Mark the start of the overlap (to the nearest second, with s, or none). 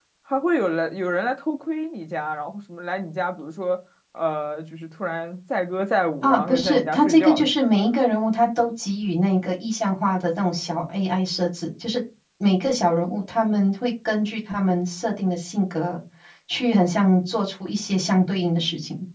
6 s